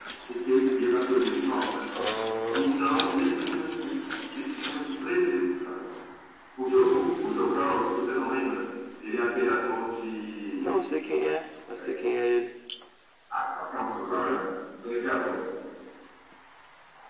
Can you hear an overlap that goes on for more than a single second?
No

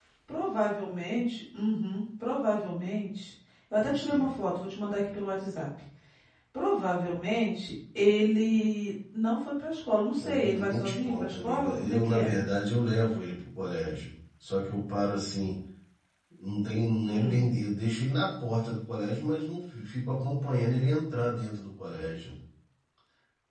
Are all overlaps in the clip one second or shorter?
No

